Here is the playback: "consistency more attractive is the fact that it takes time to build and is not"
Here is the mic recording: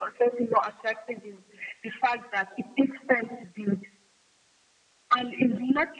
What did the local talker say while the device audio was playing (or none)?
none